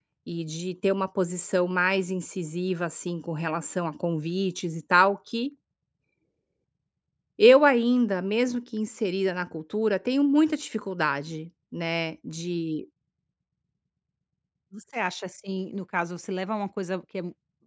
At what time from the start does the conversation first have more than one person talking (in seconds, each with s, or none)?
none